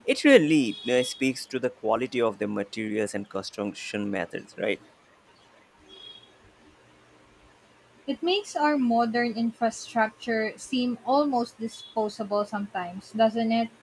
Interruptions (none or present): none